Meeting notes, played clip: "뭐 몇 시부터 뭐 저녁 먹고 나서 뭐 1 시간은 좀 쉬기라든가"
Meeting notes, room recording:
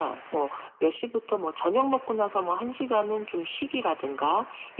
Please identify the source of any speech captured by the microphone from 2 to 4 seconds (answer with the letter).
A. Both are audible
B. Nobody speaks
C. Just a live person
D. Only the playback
D